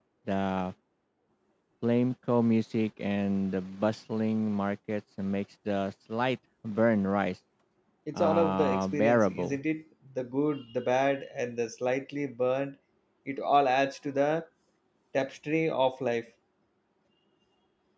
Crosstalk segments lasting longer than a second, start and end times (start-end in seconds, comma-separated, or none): 8.1-9.6